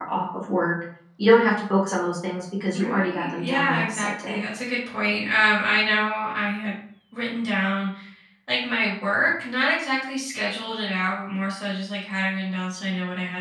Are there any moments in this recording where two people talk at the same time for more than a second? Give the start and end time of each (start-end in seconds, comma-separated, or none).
2.8-4.5